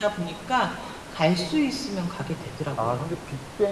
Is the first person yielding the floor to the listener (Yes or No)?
Yes